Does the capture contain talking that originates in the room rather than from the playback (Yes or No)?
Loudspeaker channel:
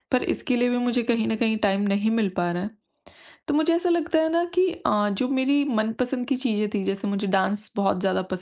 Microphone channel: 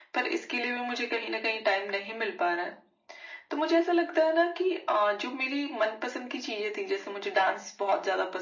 No